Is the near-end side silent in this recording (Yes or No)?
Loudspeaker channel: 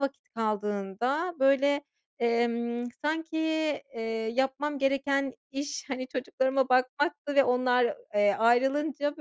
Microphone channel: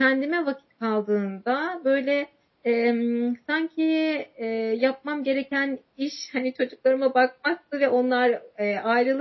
Yes